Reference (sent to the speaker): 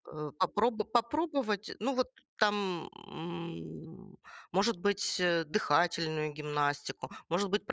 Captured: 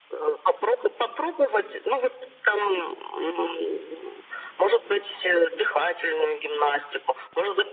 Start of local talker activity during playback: none

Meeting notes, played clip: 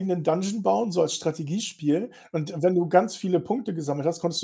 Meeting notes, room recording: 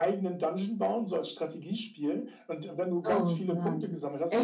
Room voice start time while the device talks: 3 s

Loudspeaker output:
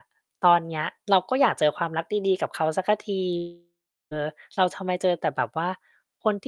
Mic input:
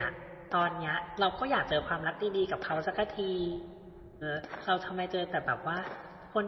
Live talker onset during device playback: none

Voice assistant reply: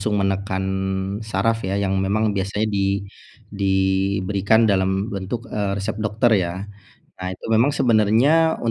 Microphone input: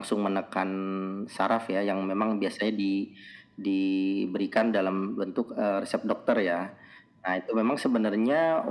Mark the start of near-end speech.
none

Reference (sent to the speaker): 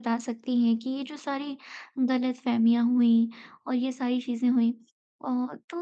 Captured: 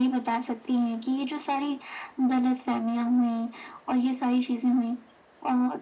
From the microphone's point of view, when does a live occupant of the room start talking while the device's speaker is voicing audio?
none

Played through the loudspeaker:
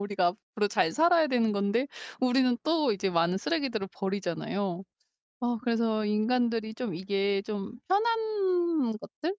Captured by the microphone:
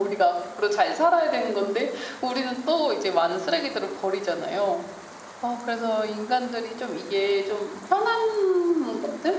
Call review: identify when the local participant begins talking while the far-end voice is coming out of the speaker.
none

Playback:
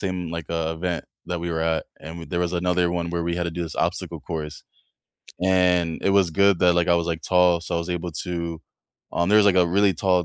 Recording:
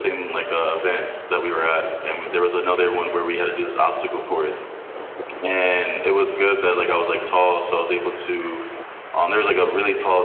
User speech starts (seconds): none

